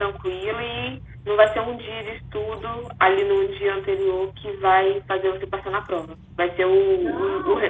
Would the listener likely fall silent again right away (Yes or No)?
Yes